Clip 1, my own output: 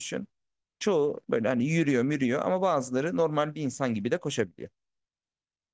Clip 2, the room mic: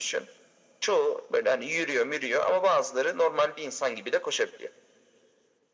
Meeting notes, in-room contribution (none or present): none